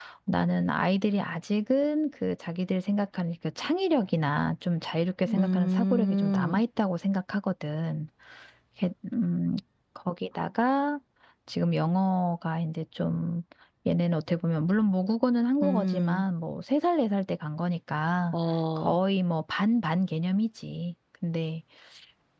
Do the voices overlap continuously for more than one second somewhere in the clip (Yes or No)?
Yes